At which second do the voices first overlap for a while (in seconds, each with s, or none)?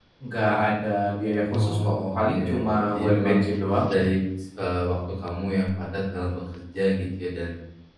1.5 s